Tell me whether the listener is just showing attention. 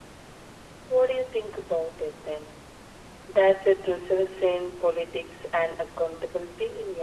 No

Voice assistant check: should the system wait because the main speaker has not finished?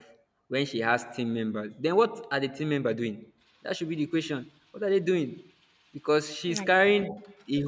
Yes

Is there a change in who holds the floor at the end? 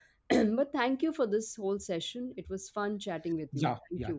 Yes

